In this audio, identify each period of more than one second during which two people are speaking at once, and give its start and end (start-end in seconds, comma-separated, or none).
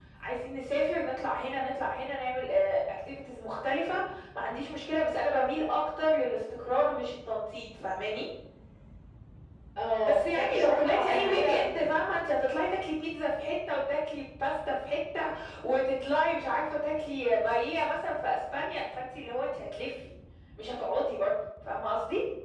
10.1-11.6